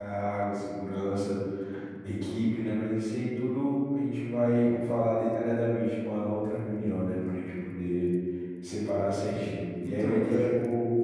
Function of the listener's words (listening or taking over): listening